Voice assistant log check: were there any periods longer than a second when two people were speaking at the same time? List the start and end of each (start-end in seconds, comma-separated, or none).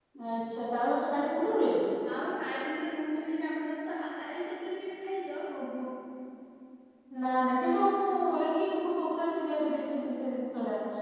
none